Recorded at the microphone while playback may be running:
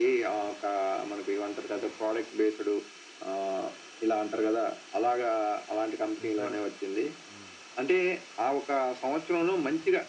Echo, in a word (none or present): present